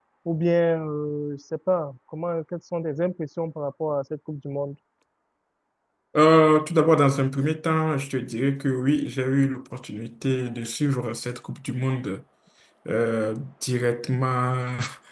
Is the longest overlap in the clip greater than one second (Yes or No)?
No